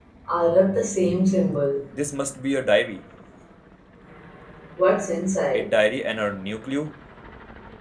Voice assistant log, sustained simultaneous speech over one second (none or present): none